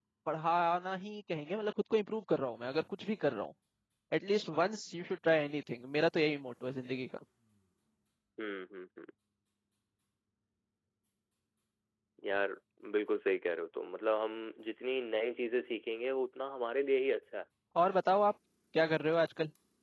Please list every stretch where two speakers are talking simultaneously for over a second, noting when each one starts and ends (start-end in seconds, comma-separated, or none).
none